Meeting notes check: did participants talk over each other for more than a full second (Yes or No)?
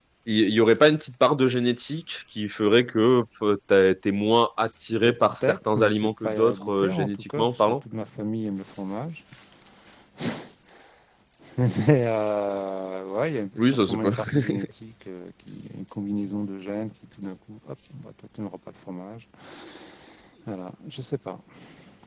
Yes